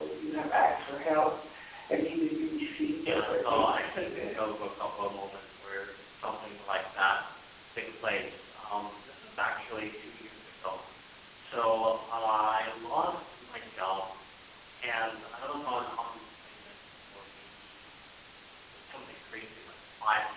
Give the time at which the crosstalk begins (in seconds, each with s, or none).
2.9 s